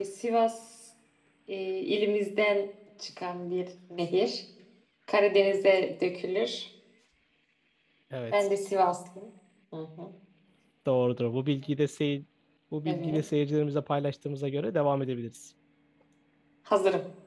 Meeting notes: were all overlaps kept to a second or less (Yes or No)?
Yes